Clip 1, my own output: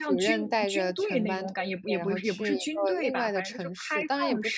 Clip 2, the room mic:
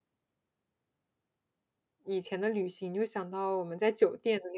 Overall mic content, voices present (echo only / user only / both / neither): user only